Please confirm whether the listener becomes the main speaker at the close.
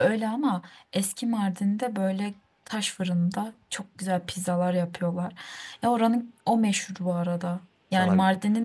No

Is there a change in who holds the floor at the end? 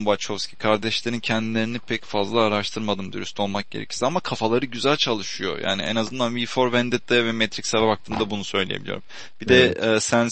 No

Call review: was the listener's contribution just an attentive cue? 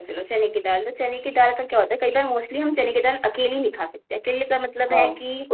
Yes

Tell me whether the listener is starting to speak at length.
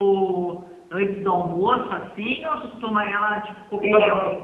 Yes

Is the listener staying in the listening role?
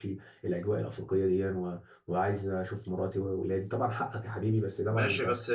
No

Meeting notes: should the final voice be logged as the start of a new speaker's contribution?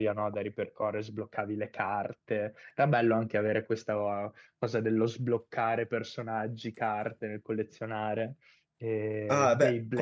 Yes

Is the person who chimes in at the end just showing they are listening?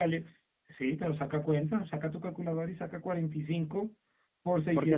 No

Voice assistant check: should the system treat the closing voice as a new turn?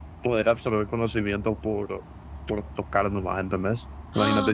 No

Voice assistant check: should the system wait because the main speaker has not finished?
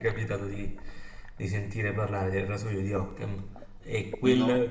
Yes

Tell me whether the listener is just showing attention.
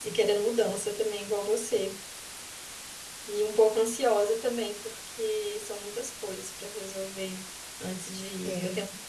Yes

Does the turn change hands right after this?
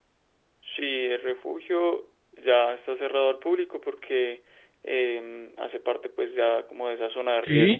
No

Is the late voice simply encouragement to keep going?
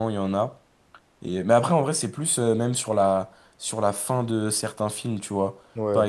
Yes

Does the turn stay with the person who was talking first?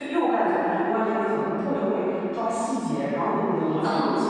Yes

